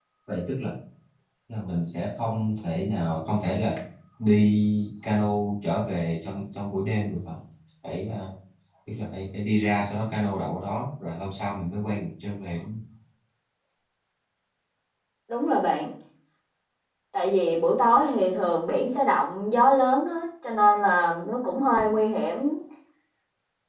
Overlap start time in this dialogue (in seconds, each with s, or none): none